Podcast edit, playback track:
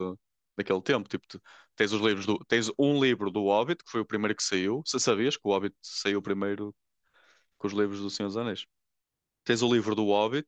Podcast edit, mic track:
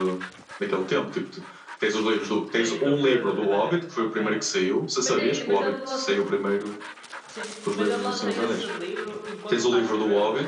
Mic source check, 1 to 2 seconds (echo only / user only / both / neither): echo only